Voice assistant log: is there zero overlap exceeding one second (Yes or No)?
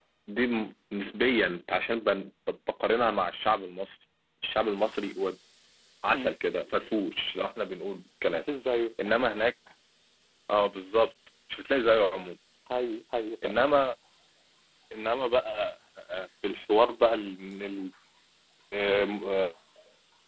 Yes